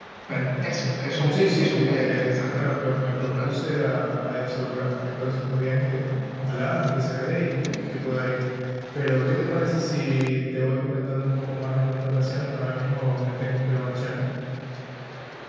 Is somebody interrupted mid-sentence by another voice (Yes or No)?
Yes